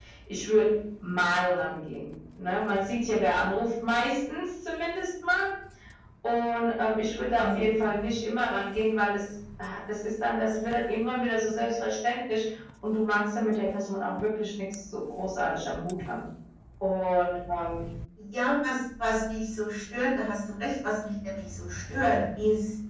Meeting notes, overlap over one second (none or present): none